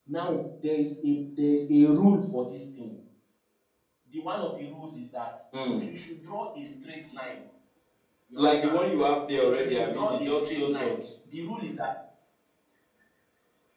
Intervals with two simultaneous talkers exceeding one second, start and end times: 9.5-10.9

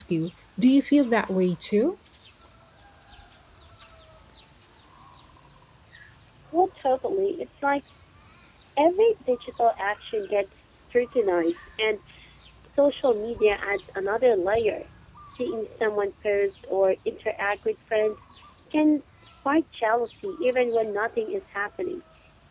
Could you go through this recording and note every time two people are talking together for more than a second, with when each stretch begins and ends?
none

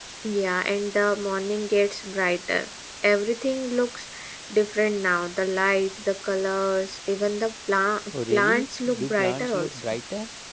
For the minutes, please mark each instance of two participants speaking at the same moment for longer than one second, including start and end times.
8.3-9.8

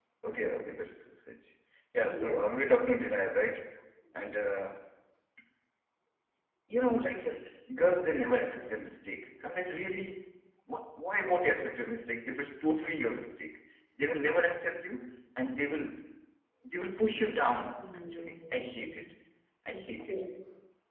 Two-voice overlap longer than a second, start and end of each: 17.8-19.1

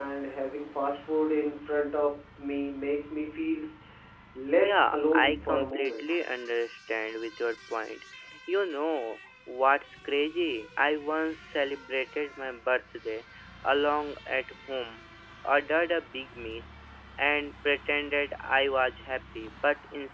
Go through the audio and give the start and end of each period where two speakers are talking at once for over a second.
4.6-6.0

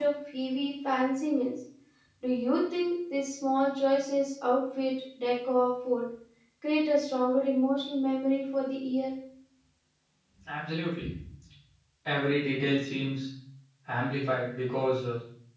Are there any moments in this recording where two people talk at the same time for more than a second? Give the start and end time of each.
none

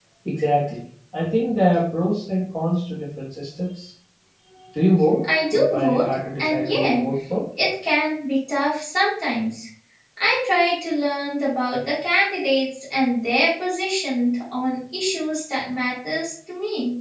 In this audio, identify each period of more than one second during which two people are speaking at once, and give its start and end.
5.3-7.0

